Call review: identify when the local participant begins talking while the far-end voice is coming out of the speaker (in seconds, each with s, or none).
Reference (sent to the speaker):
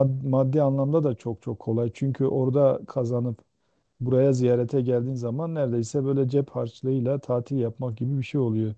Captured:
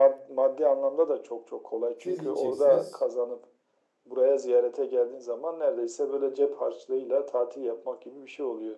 2.0 s